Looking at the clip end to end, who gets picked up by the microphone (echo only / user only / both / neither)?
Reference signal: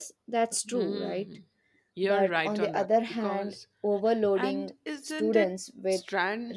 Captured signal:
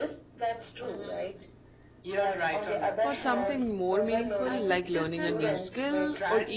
both